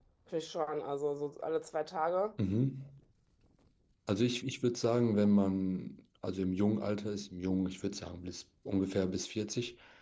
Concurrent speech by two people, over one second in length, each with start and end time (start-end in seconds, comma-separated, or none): none